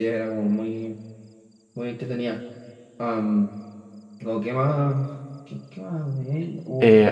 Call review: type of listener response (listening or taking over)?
taking over